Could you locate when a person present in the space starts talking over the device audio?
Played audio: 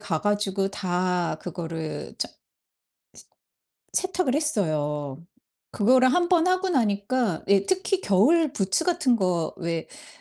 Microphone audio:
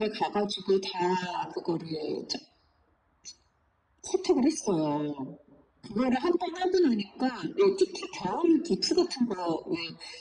none

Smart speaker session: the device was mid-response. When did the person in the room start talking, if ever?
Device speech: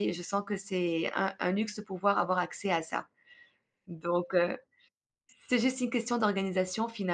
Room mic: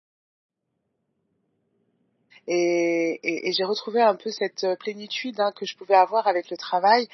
2.5 s

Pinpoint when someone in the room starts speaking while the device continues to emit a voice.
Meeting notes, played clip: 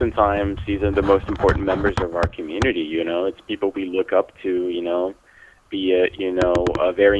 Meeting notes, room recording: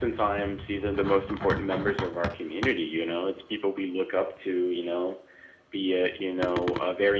none

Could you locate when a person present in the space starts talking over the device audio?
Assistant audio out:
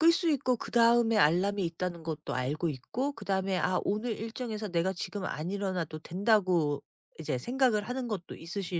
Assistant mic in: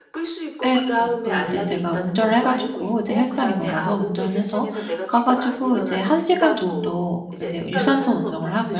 0.6 s

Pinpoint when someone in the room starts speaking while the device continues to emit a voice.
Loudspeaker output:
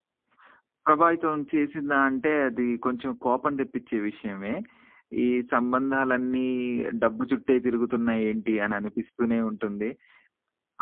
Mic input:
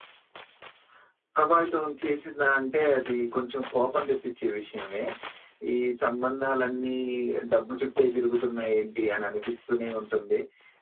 none

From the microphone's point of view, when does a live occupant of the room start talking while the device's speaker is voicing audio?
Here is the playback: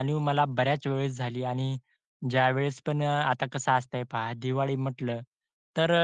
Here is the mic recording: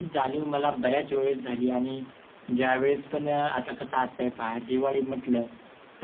none

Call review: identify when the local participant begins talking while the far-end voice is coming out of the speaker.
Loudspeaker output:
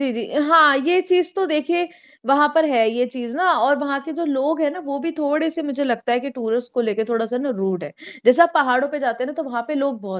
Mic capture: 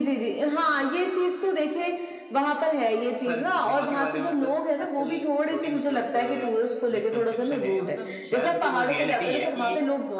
3.3 s

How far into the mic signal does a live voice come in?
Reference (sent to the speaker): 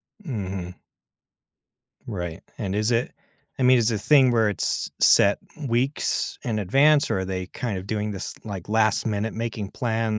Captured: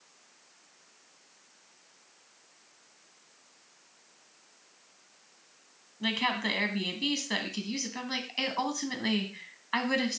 6.0 s

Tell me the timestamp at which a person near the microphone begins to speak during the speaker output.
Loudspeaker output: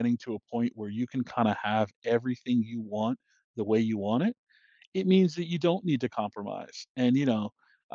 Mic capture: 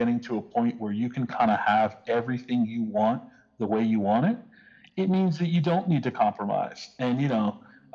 none

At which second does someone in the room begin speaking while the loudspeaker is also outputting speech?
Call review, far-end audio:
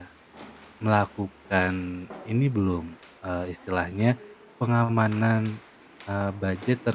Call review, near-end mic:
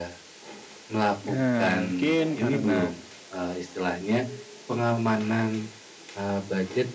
1.3 s

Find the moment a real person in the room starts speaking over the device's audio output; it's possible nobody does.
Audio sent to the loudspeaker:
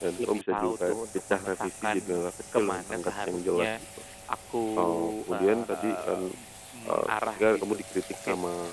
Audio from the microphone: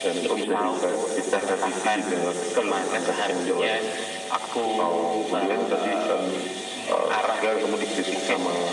none

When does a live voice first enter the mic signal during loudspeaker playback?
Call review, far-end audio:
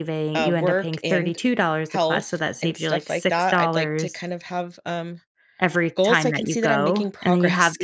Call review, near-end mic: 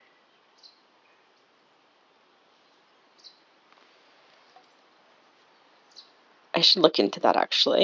6.5 s

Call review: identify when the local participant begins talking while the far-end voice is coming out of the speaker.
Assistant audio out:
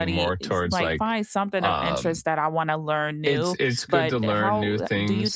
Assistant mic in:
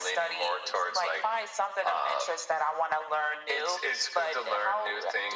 none

